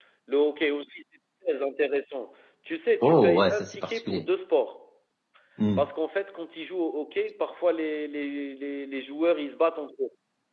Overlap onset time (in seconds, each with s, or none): 3.0 s